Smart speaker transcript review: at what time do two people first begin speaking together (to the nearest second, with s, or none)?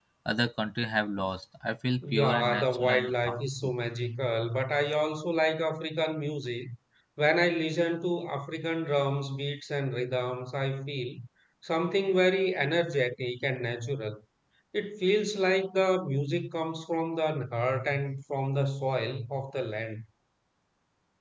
2 s